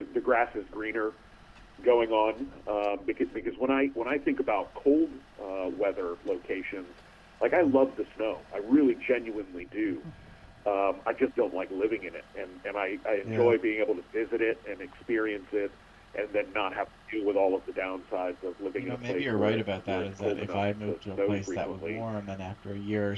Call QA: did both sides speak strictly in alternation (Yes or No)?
No